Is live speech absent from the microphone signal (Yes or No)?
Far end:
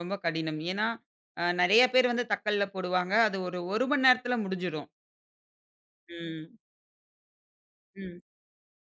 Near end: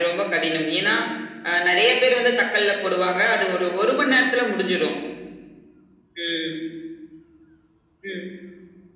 Yes